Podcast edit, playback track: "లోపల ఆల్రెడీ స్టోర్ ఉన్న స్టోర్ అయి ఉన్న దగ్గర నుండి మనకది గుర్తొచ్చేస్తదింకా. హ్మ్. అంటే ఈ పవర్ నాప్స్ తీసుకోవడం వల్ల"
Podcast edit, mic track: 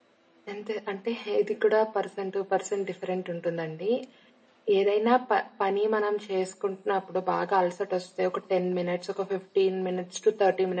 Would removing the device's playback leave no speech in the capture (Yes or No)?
No